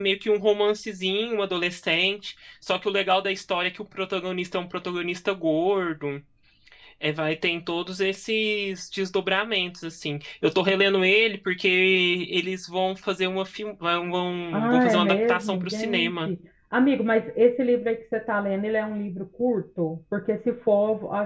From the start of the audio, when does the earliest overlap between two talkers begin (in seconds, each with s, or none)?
14.5 s